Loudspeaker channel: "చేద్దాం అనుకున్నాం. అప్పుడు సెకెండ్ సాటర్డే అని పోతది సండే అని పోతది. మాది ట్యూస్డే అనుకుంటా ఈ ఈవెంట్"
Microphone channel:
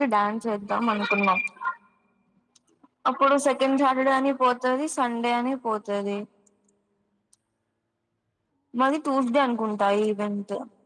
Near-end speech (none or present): none